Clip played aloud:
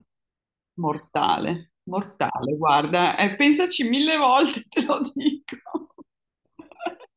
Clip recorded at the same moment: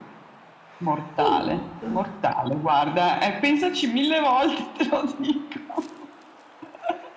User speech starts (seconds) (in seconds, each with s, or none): 1.2 s